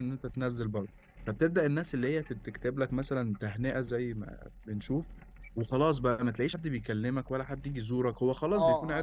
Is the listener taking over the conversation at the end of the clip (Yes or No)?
Yes